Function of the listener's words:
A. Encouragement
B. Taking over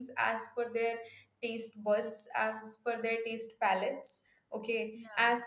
A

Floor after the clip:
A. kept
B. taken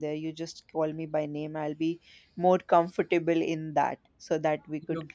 A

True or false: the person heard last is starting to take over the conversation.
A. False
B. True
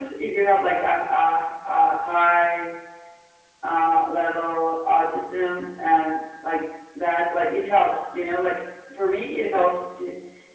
A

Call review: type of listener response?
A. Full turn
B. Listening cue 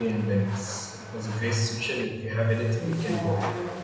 A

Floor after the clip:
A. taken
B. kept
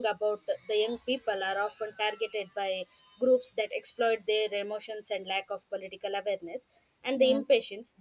B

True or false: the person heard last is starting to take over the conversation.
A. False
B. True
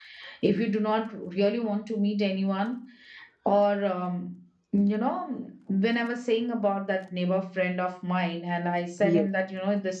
A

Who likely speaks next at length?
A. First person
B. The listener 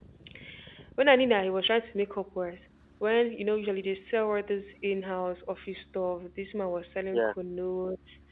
A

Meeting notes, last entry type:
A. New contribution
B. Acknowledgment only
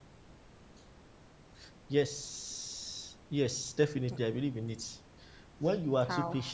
B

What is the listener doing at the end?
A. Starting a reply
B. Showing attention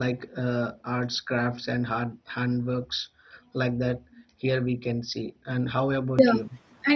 A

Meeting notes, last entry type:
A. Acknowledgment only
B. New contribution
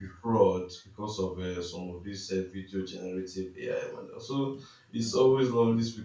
A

